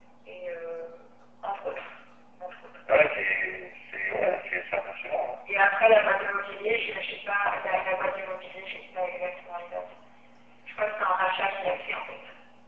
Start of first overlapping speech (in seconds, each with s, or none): none